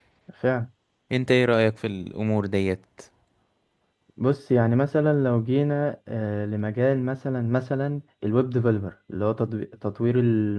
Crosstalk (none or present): none